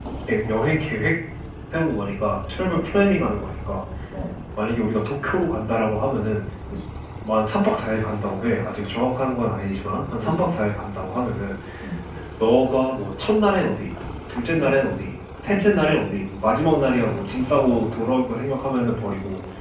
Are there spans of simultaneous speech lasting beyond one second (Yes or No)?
No